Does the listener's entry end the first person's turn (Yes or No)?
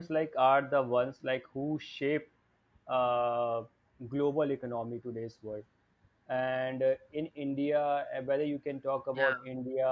No